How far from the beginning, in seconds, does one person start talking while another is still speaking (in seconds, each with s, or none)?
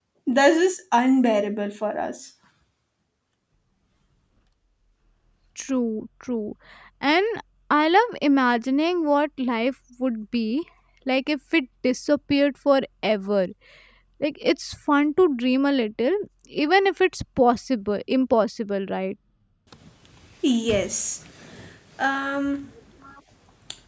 none